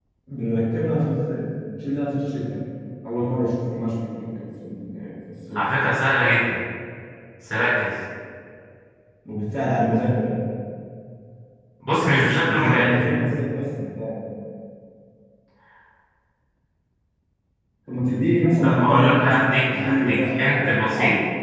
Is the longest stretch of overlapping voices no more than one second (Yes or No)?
No